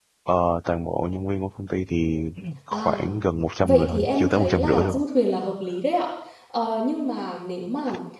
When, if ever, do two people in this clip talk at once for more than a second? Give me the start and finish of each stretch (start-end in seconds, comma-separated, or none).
3.6-5.0